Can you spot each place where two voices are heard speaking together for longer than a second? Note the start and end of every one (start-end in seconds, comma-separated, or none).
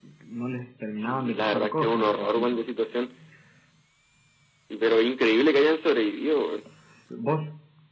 1.0-2.6